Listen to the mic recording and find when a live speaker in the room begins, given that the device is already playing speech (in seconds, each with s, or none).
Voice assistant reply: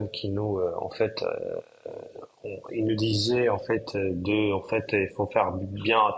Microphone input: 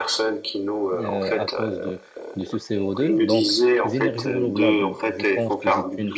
0.9 s